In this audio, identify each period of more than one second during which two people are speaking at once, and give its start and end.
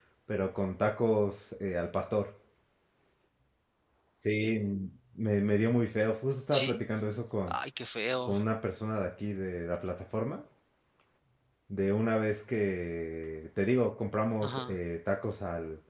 none

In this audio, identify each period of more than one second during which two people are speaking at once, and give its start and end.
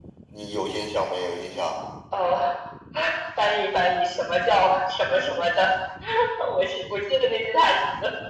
none

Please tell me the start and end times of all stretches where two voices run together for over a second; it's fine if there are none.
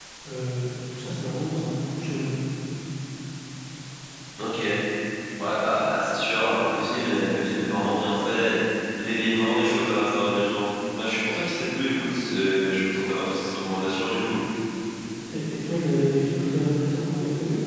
none

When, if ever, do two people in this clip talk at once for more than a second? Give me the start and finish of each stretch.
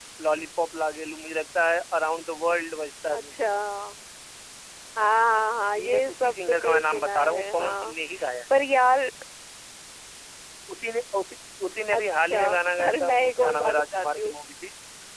5.7-7.9, 11.9-14.3

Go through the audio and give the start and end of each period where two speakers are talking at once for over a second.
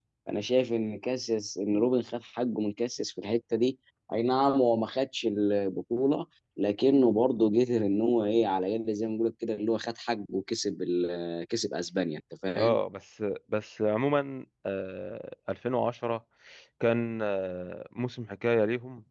none

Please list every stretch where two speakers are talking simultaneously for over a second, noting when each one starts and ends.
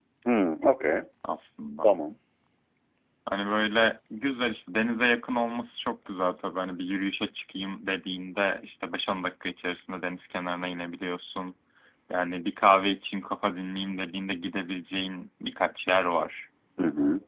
none

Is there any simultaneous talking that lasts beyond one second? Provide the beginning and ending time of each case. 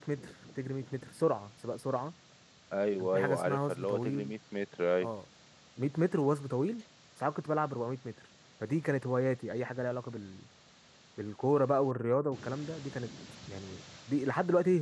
3.0-4.3

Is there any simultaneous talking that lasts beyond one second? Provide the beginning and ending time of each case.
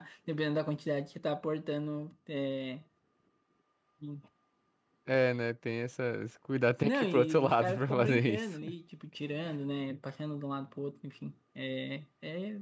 6.8-8.6

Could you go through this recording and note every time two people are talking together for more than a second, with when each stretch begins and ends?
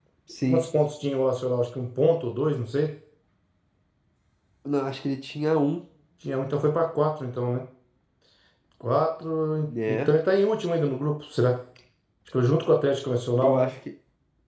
none

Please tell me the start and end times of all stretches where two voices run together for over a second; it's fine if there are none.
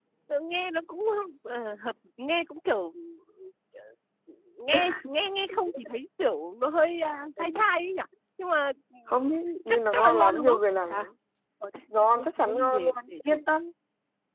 9.7-11.0, 12.0-13.4

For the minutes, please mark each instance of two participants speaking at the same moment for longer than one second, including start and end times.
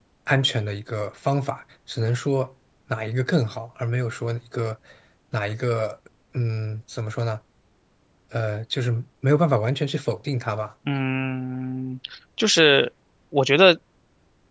none

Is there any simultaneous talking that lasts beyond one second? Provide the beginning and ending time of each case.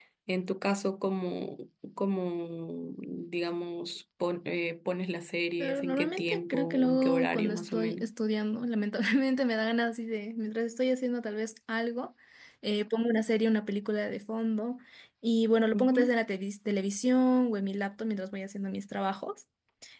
5.6-8.0

